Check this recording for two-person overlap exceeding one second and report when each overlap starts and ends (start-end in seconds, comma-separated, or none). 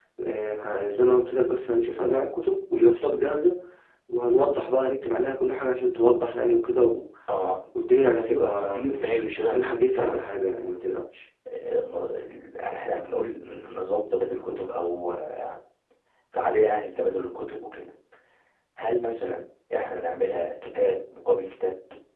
8.1-10.3